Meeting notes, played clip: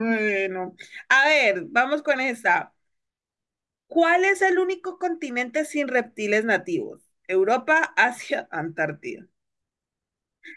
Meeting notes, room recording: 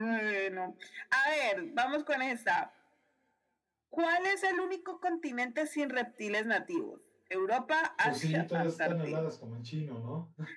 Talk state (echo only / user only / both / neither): both